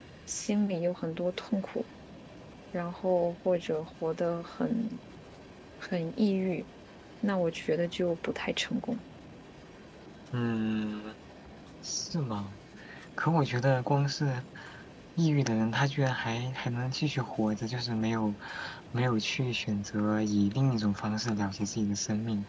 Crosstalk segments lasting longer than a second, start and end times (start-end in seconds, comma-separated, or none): none